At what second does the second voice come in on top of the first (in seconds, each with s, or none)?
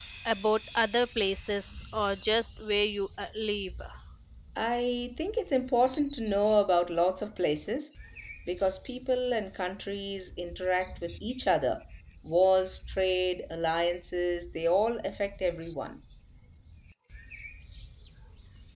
none